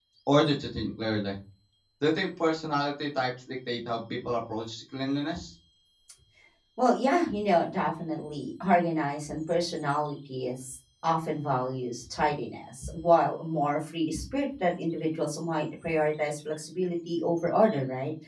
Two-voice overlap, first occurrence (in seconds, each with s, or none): none